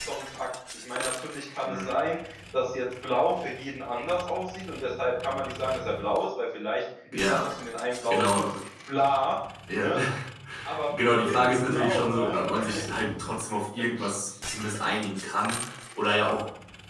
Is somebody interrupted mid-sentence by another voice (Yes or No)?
Yes